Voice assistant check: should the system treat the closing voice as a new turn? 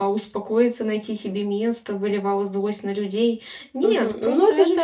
Yes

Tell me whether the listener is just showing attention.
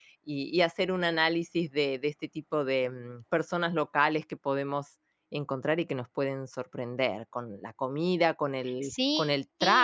Yes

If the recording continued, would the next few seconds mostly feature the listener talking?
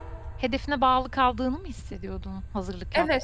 Yes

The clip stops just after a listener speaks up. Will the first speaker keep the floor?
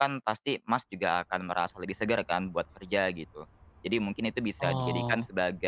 Yes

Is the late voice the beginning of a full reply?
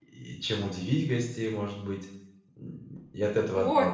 Yes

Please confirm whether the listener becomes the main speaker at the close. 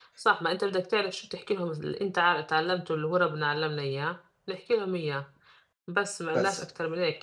No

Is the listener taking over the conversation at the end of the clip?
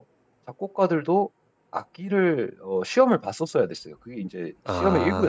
Yes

